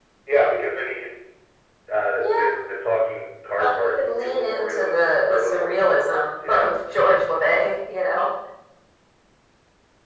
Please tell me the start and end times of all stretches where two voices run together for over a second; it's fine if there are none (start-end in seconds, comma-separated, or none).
3.6-6.7